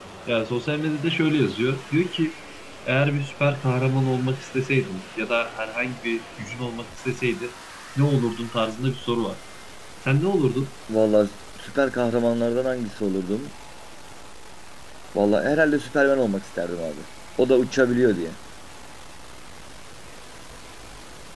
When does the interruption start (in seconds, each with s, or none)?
none